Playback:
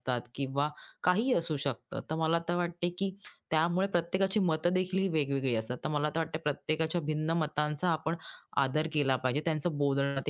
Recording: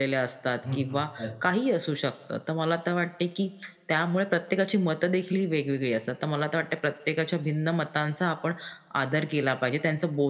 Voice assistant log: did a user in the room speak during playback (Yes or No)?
Yes